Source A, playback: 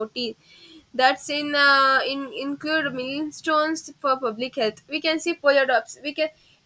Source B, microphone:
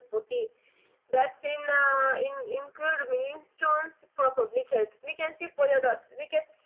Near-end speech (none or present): none